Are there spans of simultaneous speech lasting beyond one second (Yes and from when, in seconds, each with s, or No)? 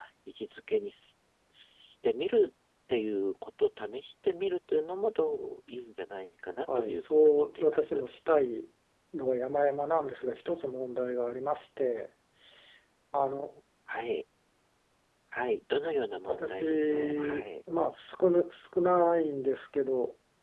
Yes, from 6.8 s